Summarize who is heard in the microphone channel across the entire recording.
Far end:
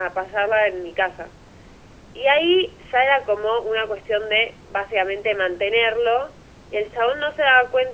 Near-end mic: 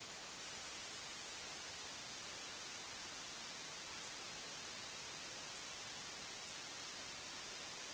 neither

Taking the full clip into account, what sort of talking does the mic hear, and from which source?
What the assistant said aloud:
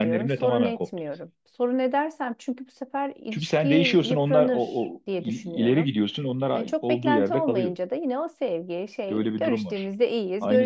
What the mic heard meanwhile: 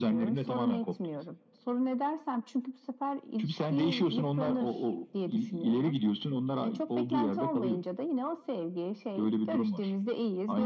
echo only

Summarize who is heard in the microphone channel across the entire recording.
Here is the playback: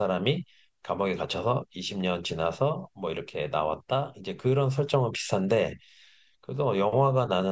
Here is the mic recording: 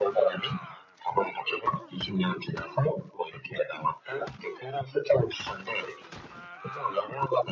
echo only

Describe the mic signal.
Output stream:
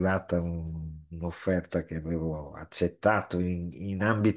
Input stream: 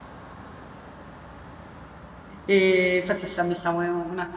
user only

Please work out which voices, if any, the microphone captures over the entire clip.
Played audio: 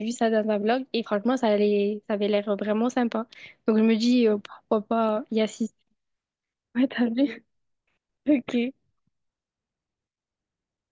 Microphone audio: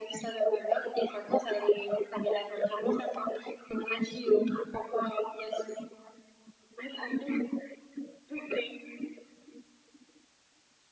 echo only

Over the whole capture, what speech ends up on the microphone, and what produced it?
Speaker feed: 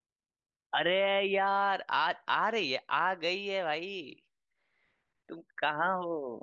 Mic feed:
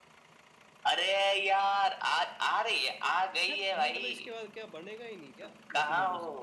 both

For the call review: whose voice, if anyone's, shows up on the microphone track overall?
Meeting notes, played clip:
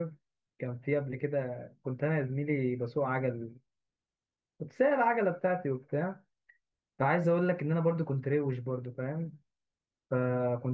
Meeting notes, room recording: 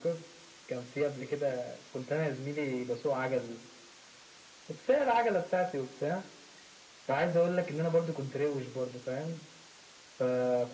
echo only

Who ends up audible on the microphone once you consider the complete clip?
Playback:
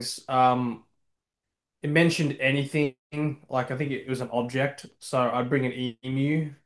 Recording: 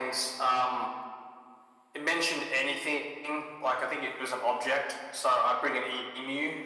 echo only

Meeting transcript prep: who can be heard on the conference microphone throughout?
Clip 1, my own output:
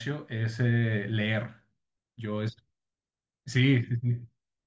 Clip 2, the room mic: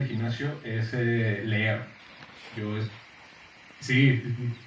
echo only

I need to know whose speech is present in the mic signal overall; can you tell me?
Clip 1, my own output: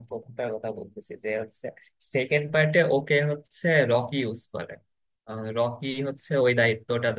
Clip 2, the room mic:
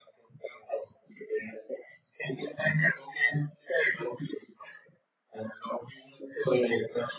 echo only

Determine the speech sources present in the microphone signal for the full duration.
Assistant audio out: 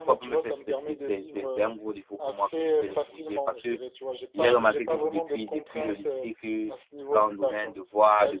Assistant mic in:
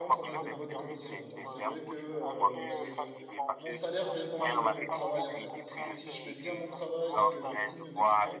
both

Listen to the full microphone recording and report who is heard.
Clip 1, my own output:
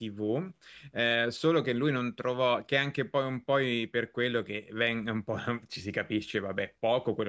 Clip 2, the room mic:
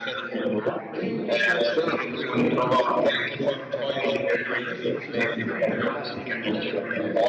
both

